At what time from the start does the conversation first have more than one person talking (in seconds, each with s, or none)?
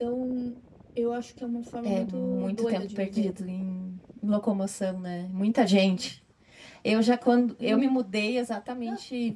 1.9 s